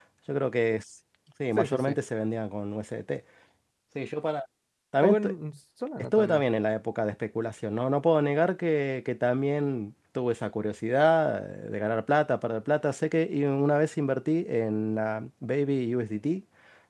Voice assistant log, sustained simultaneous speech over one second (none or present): none